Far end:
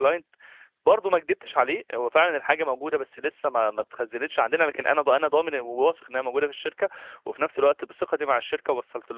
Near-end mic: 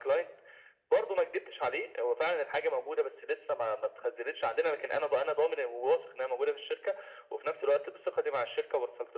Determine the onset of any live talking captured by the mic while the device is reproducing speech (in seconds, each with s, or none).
none